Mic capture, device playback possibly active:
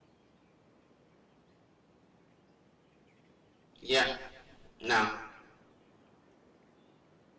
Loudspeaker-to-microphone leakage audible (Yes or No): No